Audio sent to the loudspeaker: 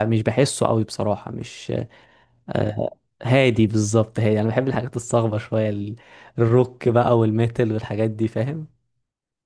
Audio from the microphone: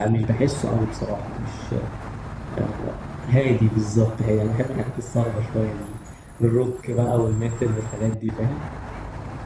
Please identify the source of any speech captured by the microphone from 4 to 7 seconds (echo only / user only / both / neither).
echo only